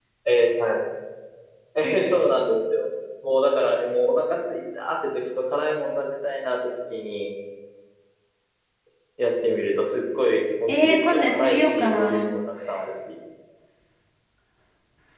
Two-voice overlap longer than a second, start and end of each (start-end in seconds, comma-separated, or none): 10.7-12.3